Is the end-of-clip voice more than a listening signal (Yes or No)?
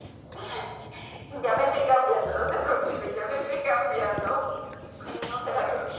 No